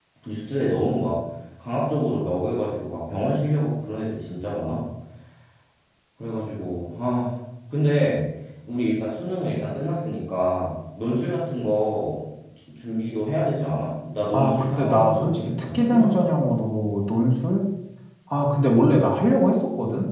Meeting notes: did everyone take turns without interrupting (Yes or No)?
No